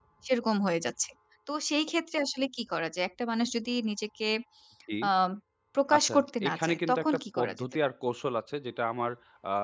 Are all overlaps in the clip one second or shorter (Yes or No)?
No